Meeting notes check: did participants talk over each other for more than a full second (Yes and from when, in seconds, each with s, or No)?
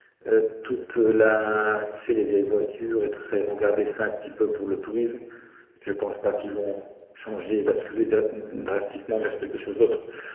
No